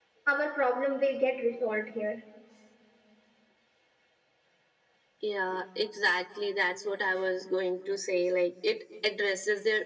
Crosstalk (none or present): none